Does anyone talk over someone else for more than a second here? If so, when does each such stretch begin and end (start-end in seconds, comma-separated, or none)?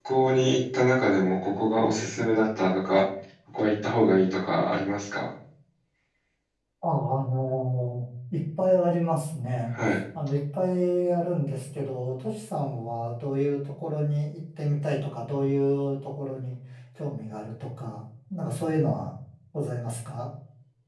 none